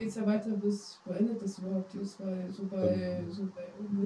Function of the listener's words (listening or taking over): listening